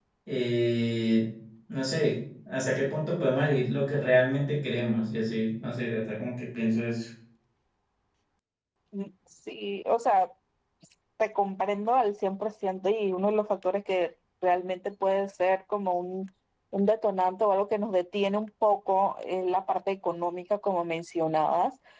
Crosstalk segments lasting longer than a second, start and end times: none

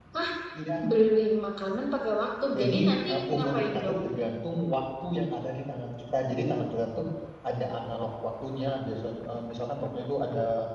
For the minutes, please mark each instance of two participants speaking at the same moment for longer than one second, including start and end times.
2.6-4.0

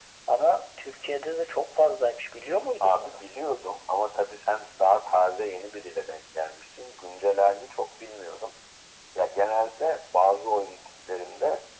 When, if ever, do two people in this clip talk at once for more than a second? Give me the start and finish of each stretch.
none

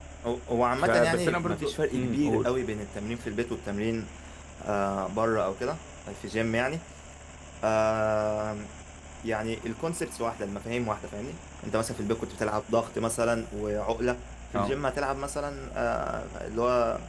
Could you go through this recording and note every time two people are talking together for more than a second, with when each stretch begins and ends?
0.8-2.6

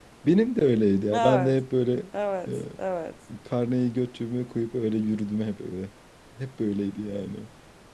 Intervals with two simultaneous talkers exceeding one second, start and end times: none

